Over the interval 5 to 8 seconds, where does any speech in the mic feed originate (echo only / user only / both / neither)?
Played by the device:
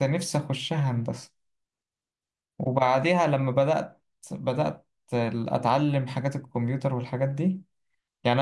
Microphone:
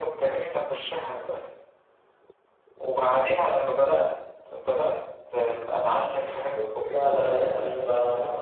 both